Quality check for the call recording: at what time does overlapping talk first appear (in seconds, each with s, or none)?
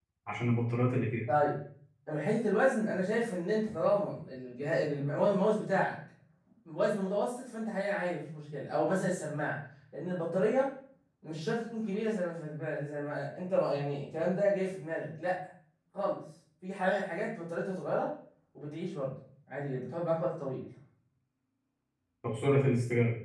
none